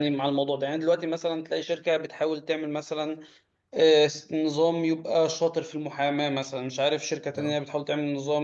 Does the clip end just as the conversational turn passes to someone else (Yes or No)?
No